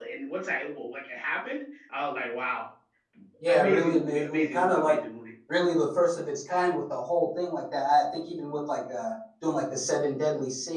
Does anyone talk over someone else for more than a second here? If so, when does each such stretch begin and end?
3.5-5.0

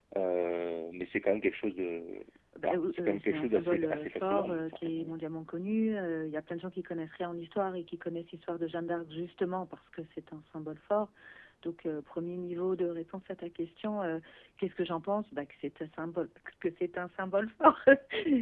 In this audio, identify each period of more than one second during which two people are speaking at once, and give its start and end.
2.6-5.2

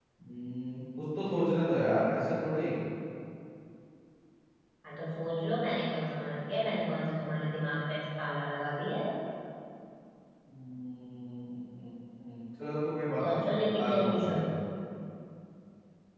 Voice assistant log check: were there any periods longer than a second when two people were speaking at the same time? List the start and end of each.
13.2-14.5

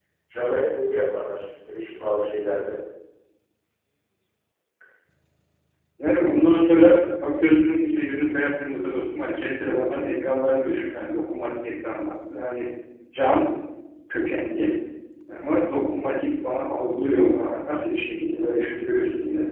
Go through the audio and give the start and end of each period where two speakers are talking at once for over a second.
none

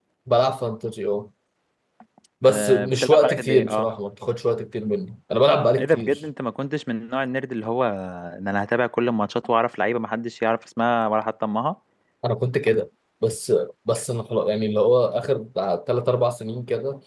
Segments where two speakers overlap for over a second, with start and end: 2.5-3.9

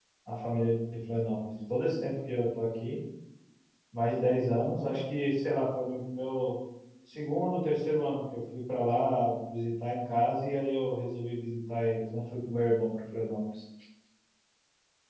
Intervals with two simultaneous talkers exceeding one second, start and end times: none

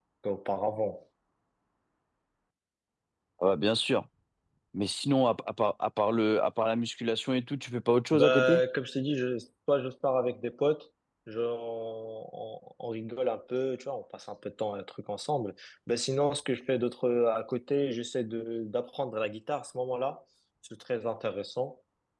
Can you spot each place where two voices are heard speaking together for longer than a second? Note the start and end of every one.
none

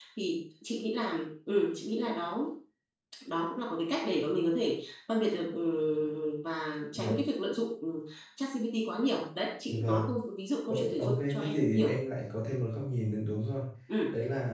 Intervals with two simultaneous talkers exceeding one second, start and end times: 10.7-12.0

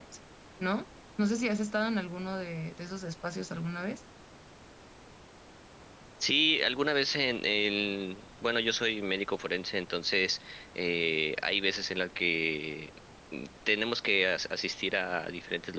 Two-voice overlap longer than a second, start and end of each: none

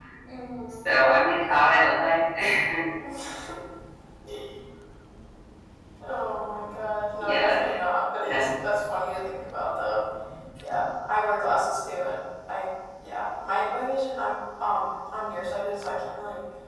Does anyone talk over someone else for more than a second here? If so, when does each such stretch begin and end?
none

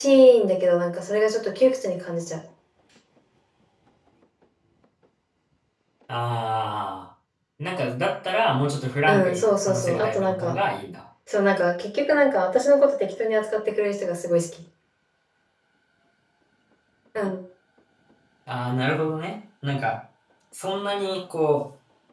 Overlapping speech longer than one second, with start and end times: 9.1-10.6

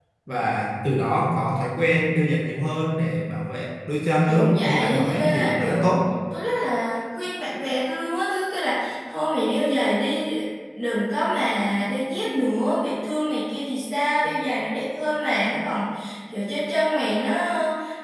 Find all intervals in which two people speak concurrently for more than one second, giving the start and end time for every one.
4.3-5.9

